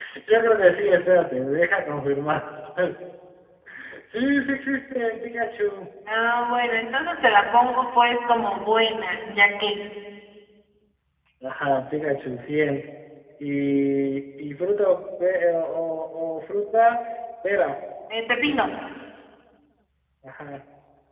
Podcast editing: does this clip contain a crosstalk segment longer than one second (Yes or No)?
No